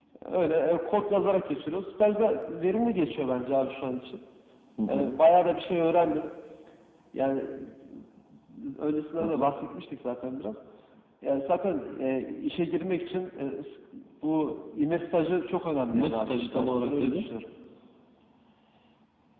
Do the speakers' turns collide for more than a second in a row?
Yes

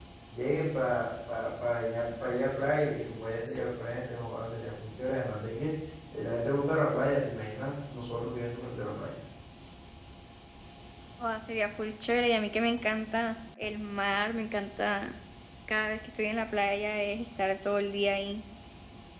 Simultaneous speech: No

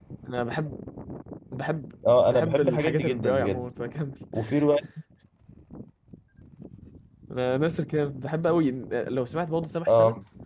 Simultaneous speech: Yes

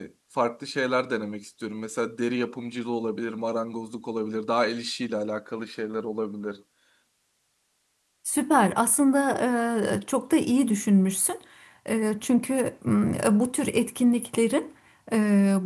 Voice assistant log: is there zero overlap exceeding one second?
Yes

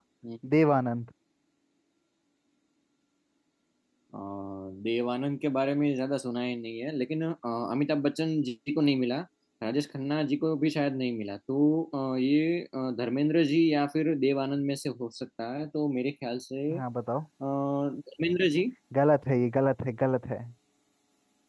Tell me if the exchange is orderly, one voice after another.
Yes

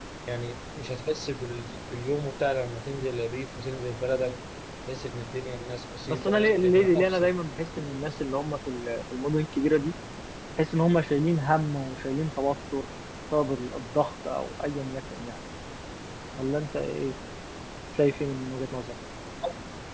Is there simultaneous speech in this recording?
Yes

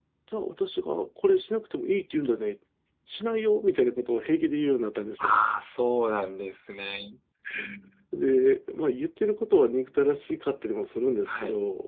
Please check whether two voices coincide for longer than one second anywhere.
No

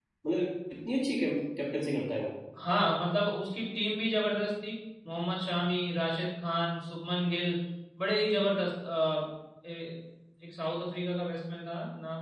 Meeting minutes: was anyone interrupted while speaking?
No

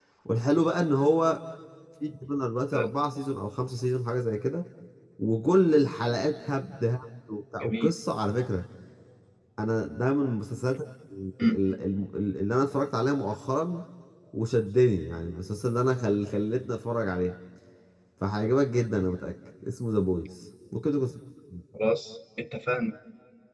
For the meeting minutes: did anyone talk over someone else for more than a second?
No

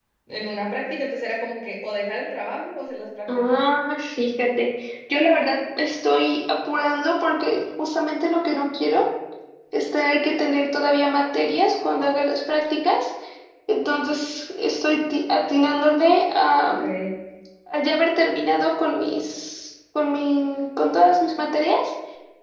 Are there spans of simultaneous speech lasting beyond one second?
No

